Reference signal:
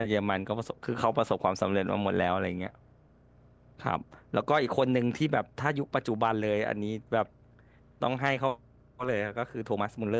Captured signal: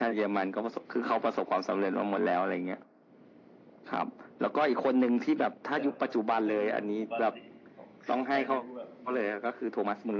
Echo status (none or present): present